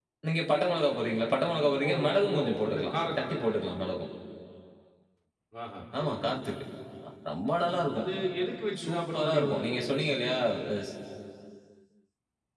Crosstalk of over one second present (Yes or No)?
Yes